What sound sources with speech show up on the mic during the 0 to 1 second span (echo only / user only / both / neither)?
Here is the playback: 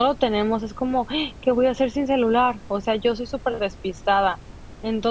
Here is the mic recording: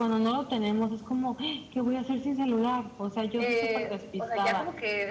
echo only